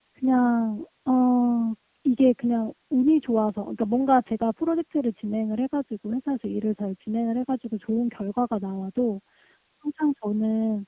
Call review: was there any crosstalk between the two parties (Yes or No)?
No